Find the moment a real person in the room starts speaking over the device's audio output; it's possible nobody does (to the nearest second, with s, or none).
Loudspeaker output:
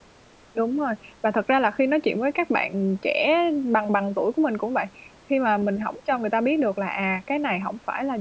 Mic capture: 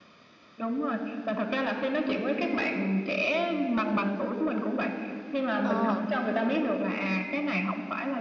6 s